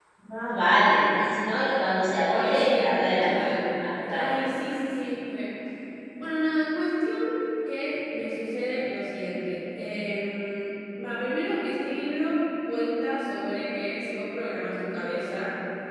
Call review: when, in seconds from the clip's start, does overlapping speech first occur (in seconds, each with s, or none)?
2.3 s